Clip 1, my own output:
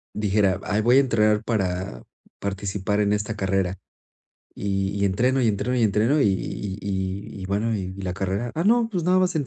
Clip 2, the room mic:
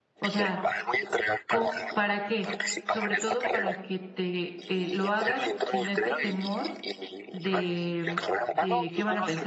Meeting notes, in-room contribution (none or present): present